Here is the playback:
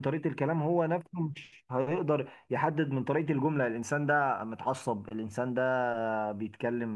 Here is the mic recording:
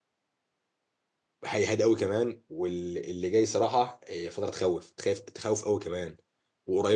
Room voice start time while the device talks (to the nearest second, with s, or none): 1 s